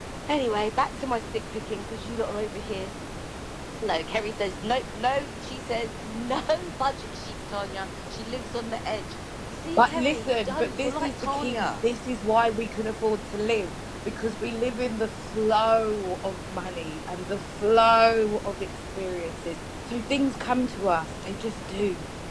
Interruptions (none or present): present